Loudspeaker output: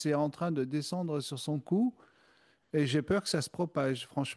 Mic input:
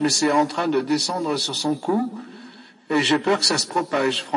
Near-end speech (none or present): none